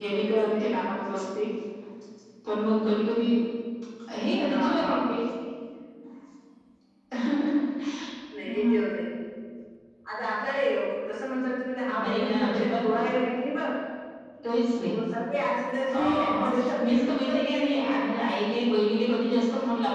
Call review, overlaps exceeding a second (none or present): present